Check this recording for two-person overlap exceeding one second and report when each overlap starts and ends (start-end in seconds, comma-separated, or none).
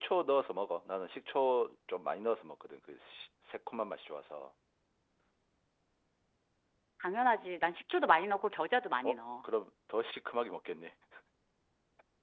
none